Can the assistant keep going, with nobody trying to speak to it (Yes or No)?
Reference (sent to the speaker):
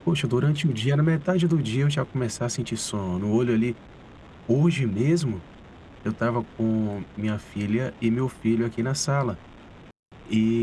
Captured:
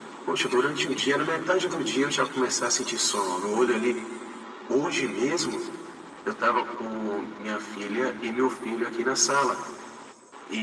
Yes